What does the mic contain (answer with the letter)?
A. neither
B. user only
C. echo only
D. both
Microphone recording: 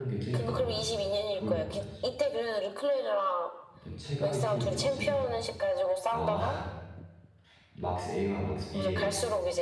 D